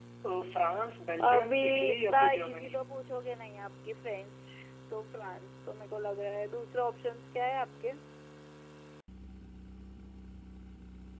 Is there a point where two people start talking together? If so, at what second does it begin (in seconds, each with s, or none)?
1.2 s